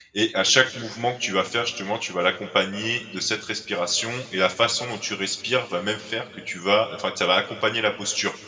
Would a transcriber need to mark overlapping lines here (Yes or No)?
No